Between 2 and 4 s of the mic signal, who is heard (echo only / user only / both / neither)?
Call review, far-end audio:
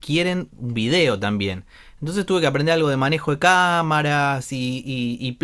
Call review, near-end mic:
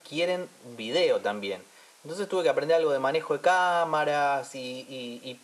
echo only